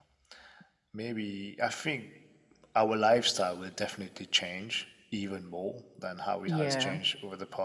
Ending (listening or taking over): listening